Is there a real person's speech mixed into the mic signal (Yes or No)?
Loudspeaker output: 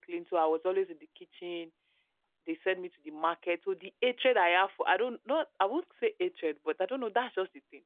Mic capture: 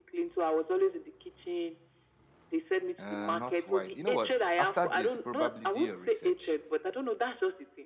Yes